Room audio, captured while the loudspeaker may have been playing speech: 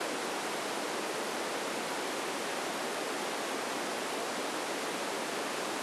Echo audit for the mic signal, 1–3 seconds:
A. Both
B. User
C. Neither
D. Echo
C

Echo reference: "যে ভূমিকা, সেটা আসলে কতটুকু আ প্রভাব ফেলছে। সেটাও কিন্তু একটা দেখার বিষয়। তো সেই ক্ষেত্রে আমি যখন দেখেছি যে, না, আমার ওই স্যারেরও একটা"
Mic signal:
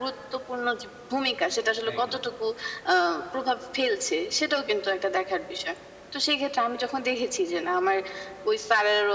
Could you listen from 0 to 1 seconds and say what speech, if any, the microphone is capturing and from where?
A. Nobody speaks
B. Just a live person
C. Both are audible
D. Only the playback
D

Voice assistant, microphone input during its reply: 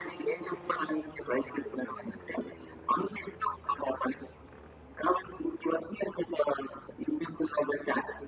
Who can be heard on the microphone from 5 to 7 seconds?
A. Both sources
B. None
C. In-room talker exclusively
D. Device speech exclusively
D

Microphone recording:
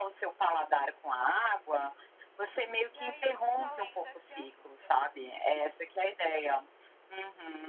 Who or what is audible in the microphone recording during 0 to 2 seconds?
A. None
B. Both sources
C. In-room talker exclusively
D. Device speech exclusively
D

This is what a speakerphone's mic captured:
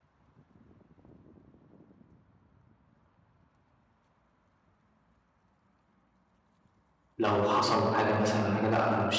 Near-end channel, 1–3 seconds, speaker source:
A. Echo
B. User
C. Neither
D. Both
C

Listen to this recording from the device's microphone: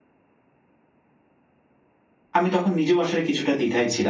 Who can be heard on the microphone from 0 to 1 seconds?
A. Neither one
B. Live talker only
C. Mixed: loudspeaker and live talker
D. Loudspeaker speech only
A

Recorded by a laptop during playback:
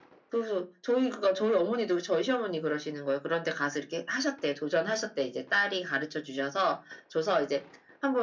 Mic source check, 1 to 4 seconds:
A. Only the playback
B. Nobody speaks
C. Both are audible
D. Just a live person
A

